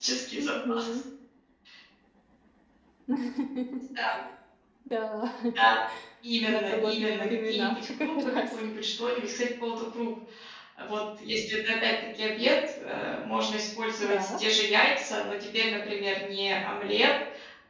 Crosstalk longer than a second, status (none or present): present